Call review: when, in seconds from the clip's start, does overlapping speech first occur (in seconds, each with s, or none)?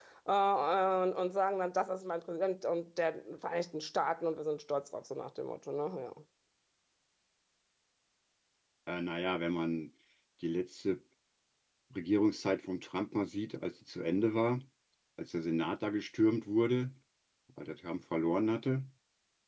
none